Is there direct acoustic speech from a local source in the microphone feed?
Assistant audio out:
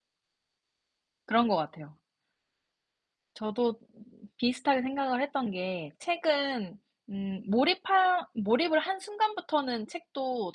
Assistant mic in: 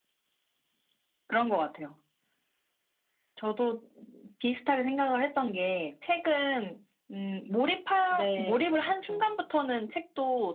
Yes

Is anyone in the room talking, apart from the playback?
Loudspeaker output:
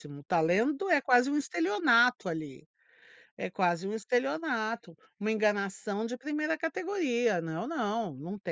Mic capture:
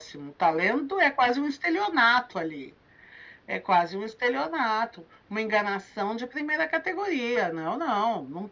No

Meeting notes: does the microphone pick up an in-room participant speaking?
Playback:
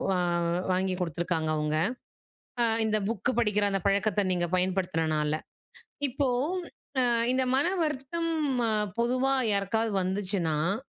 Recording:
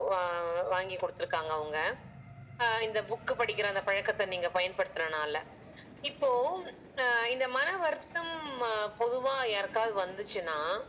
No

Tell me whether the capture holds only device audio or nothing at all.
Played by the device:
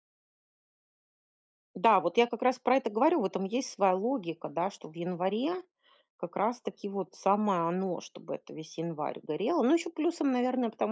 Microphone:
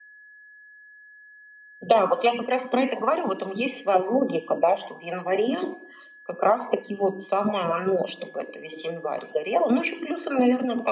Yes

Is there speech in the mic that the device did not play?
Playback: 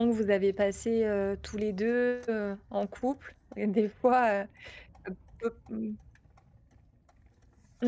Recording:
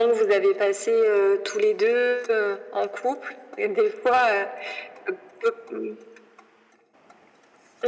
No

